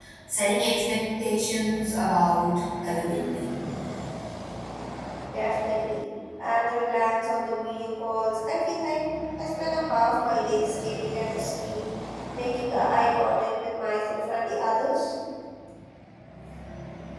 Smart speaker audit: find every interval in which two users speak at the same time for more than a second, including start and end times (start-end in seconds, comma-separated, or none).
none